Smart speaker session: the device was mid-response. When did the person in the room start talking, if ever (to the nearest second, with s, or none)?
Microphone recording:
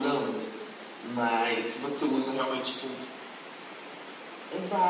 none